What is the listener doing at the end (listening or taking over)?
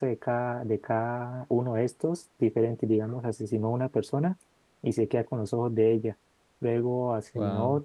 listening